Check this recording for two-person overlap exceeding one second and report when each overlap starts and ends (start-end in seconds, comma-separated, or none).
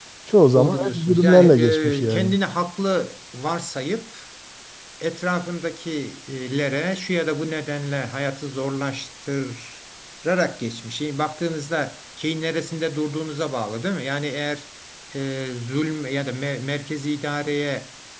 0.5-2.4